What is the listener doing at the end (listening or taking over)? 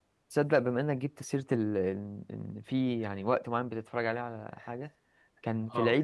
listening